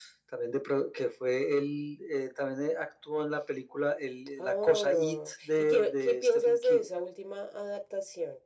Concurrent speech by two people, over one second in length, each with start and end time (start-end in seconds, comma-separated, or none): 4.4-6.8